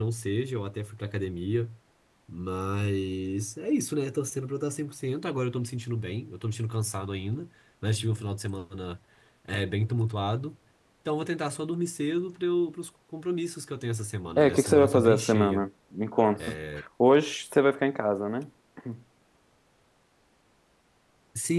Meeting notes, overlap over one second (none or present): present